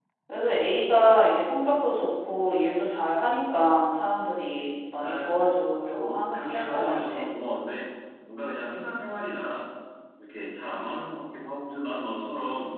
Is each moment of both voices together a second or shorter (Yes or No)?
No